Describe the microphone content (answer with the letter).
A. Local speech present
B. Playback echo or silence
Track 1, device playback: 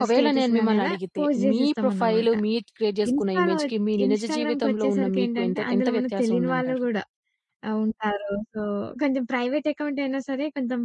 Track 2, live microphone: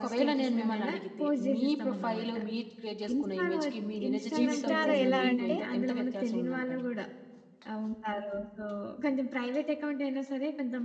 A